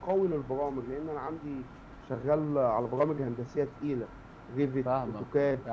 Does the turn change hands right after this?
Yes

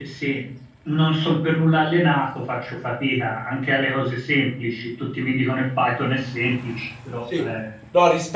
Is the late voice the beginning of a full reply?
Yes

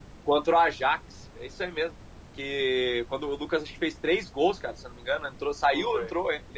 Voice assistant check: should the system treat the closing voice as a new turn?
No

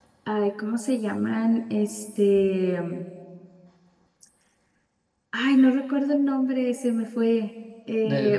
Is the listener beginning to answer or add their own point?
No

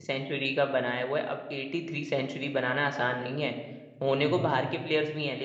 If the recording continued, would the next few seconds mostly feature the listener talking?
No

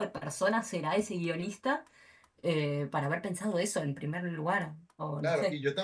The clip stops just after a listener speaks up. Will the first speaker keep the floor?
No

